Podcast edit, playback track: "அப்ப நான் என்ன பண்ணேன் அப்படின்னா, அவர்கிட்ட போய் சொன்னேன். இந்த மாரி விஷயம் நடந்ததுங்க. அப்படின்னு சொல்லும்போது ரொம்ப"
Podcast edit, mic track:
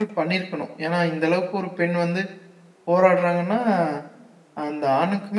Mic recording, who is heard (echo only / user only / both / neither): user only